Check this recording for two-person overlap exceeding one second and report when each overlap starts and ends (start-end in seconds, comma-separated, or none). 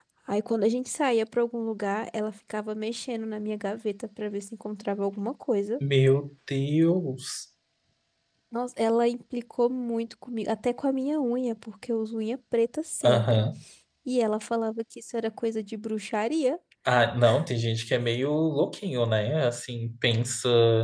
none